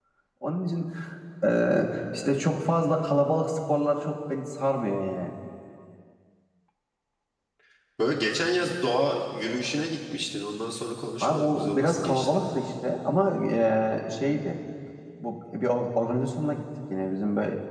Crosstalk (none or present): present